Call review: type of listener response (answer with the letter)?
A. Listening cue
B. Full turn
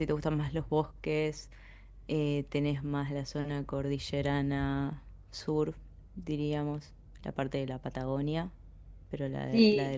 B